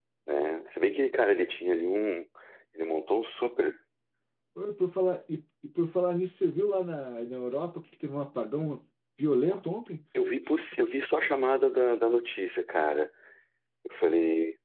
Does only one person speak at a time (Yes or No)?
Yes